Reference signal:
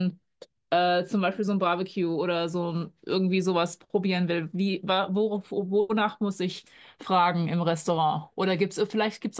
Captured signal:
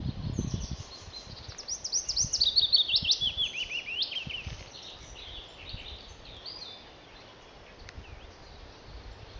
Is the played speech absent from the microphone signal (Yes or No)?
Yes